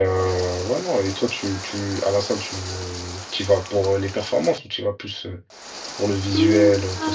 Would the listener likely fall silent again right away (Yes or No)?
No